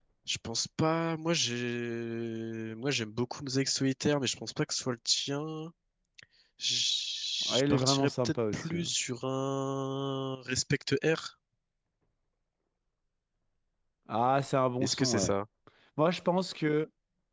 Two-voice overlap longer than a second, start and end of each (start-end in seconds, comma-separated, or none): 7.5-8.9